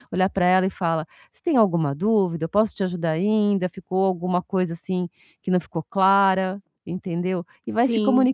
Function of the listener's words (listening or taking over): listening